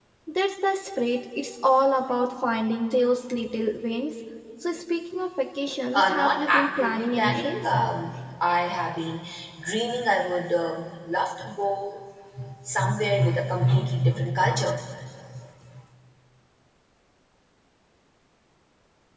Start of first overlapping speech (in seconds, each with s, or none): 5.9 s